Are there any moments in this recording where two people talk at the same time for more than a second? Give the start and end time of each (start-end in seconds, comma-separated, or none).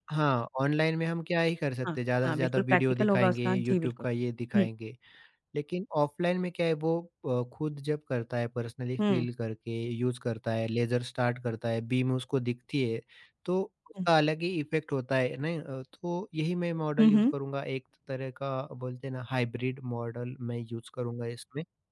1.8-3.9